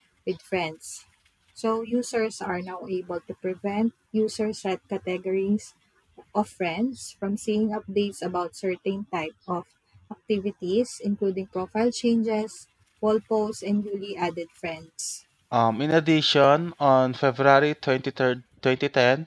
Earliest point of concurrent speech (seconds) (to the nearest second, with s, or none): none